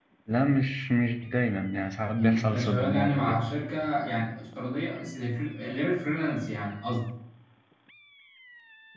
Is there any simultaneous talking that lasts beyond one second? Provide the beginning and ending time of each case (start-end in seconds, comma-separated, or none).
2.2-3.4